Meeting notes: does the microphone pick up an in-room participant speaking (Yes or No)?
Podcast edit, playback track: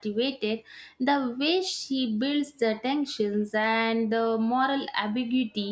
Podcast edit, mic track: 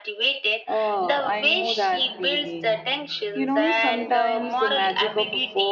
Yes